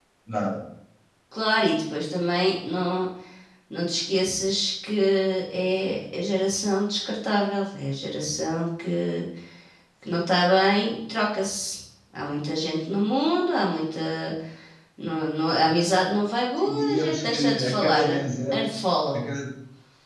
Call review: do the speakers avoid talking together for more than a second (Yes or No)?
No